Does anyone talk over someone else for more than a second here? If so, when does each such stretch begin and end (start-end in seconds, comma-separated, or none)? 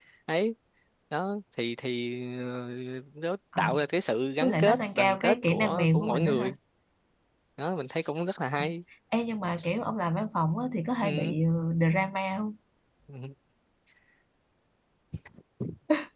4.4-6.5